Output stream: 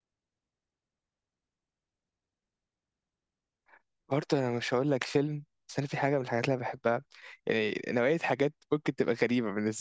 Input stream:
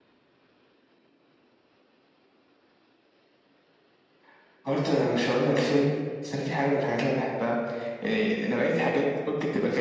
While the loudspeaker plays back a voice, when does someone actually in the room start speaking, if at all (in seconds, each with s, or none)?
none